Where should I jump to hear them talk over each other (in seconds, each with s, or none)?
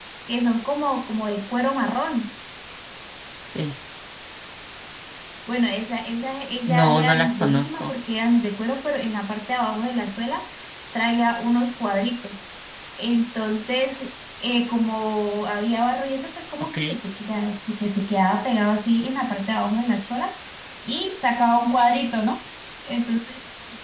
6.7 s